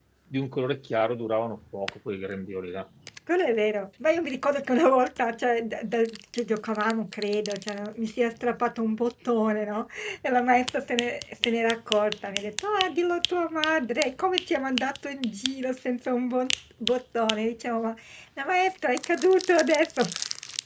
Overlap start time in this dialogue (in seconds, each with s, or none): none